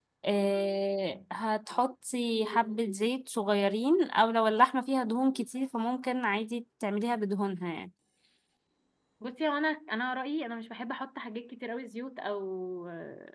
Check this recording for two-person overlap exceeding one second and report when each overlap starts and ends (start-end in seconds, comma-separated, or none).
none